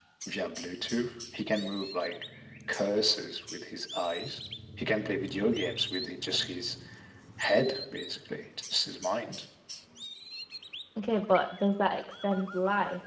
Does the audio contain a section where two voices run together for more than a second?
No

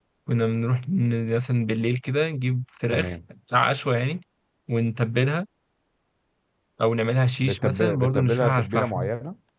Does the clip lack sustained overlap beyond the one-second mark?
No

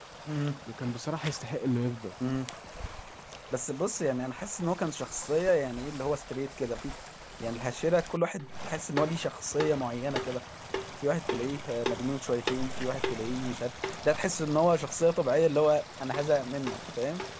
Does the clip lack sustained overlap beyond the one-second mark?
Yes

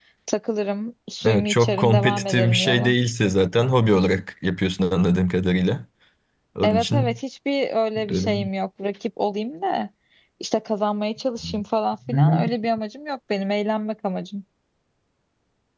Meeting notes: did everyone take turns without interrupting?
No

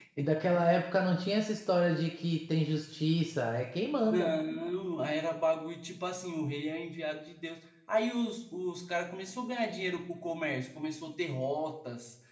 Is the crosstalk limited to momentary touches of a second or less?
Yes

